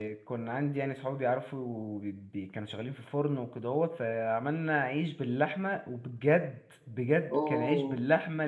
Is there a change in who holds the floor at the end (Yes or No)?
No